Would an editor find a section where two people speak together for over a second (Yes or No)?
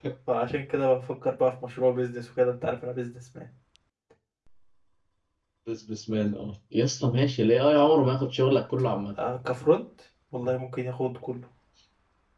No